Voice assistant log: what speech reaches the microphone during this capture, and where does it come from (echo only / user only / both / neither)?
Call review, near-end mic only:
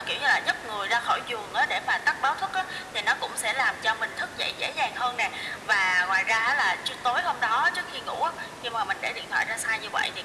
echo only